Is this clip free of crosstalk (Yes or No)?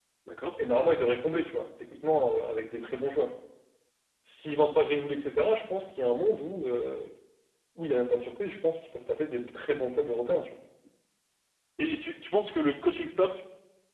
Yes